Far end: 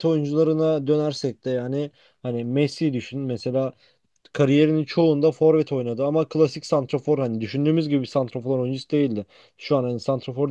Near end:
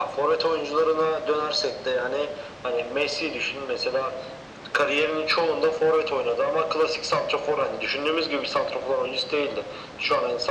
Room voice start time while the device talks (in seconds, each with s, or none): none